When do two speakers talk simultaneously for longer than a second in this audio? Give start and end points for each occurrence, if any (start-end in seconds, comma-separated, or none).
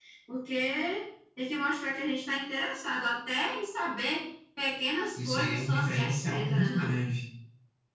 5.2-6.9